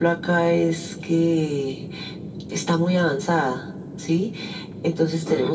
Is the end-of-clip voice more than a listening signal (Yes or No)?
No